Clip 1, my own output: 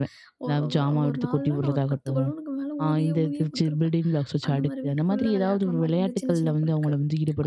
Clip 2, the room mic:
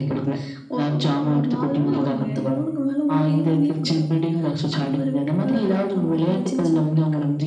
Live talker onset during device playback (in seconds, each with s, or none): 1.7 s